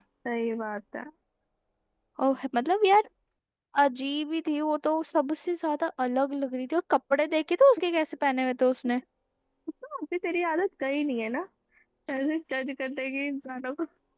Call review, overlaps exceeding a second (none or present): none